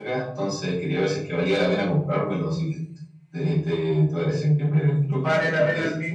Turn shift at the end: Yes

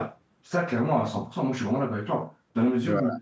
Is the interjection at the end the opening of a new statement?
No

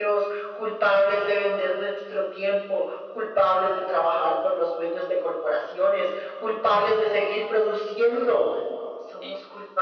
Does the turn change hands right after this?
No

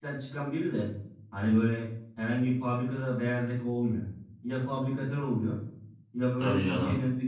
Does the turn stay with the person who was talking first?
Yes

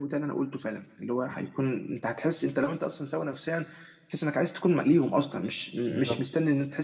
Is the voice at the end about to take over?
No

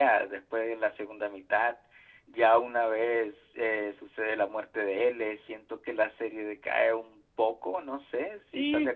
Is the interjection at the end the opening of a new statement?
Yes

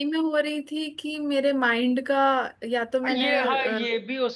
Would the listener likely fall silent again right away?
No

